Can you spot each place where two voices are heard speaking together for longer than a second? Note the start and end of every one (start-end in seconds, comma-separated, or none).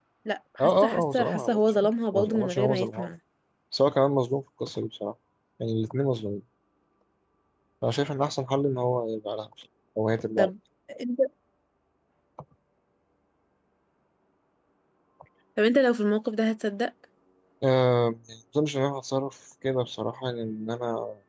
0.6-3.1